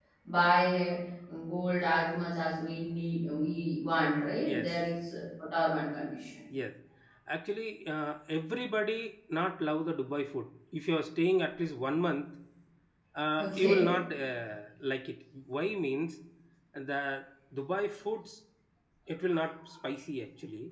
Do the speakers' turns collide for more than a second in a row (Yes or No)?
No